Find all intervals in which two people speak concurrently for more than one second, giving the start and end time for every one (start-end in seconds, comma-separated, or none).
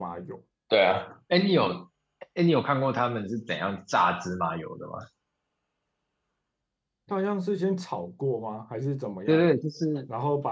none